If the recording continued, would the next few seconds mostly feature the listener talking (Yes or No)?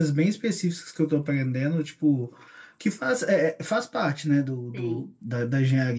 No